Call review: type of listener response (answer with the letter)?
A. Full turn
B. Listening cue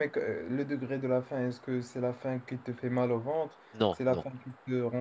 B